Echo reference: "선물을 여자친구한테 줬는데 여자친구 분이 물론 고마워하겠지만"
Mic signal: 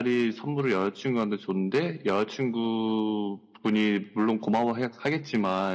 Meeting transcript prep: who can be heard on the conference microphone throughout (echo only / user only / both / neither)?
echo only